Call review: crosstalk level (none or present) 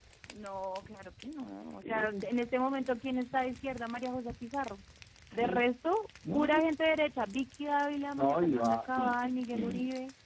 present